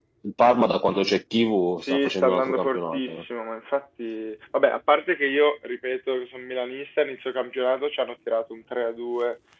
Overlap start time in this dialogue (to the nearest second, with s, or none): 2 s